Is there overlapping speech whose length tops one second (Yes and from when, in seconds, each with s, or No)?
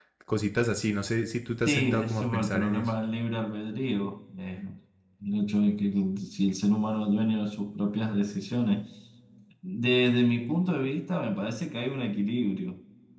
Yes, from 1.6 s